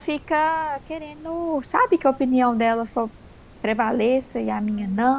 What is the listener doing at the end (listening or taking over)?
listening